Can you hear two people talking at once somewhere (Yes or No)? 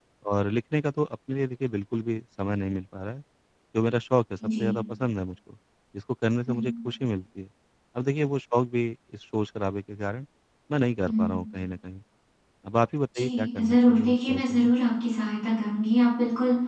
Yes